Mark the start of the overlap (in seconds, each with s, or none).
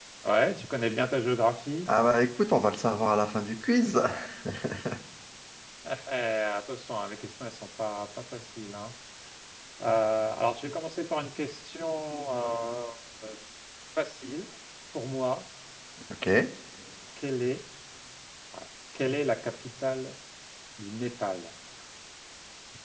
none